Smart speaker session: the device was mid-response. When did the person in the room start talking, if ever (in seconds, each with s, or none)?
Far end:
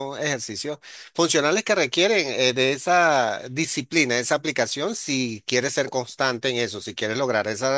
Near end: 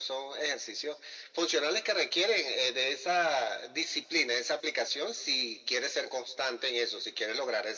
none